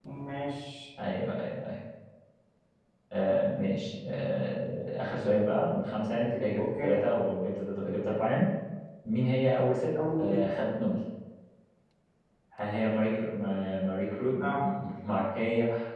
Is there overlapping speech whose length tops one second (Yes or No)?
No